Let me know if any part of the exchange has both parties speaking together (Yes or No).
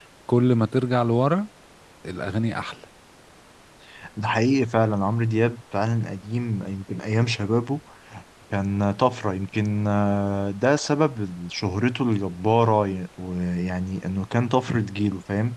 No